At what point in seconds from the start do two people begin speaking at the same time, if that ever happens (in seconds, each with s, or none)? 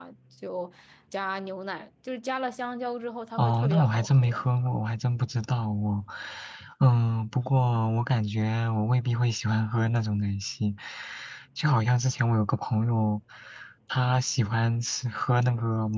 3.4 s